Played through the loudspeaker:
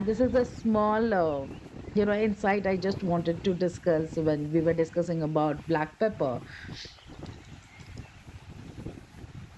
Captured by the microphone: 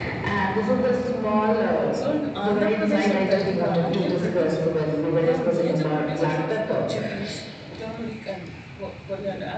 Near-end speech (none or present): present